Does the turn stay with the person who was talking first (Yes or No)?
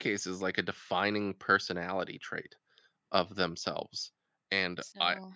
Yes